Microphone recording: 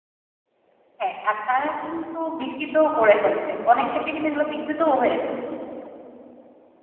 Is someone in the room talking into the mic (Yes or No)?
Yes